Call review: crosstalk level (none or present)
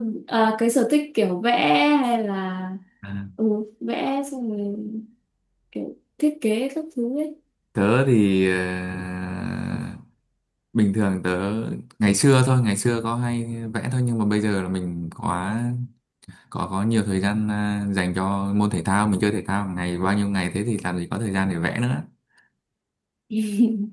none